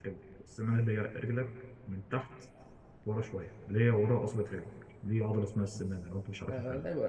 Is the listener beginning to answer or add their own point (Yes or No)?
Yes